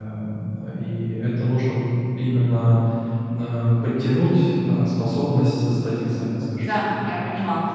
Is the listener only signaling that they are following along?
No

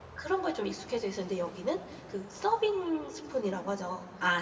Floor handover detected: No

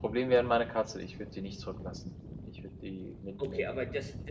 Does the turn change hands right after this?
Yes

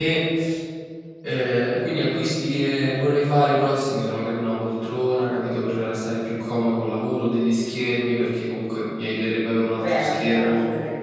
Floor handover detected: Yes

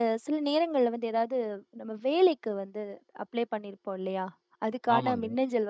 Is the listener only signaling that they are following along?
Yes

